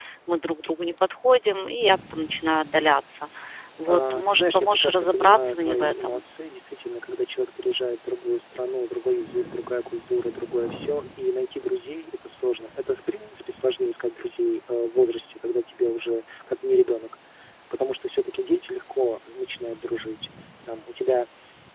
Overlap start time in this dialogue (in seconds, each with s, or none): 3.9 s